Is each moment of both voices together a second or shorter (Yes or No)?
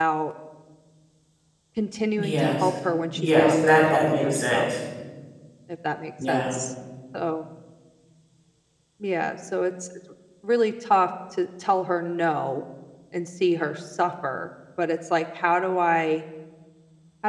No